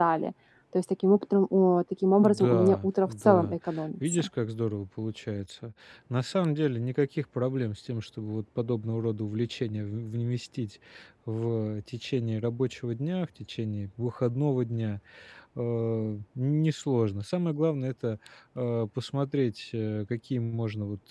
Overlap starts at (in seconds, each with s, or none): 2.2 s